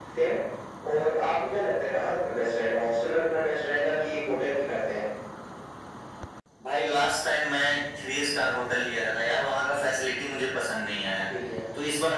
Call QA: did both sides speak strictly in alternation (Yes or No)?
Yes